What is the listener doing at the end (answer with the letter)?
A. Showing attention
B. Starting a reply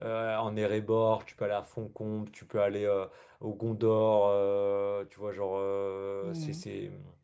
A